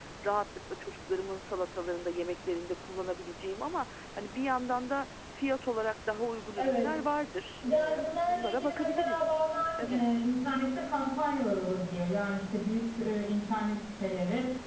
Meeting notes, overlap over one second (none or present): present